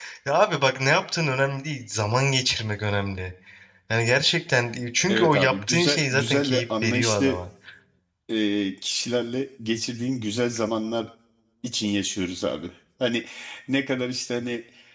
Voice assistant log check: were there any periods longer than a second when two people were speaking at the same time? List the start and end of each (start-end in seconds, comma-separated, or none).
5.1-7.4